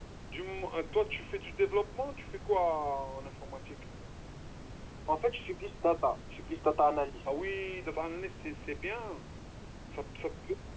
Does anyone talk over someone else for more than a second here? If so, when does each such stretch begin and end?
none

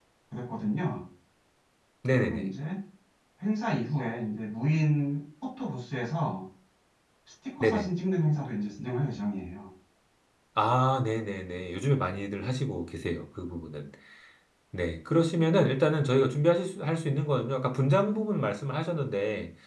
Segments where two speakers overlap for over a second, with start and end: none

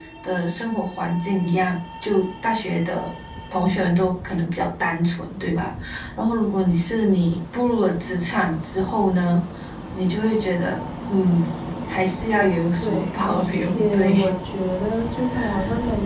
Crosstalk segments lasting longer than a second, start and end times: 12.8-14.2

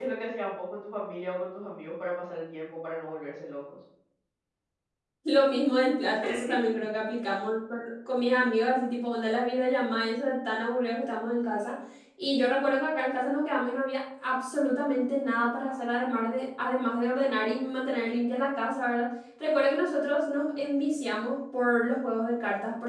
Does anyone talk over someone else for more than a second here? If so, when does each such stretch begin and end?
none

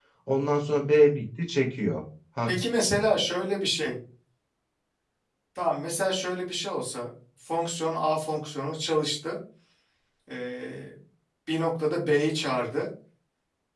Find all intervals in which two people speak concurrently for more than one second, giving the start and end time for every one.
none

